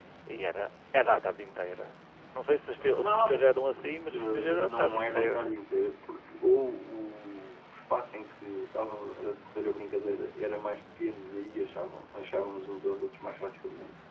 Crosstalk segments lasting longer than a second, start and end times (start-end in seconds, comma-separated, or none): 2.7-5.4